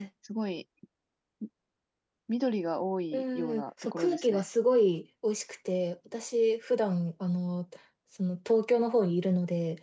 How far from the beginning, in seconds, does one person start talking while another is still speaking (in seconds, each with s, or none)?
3.1 s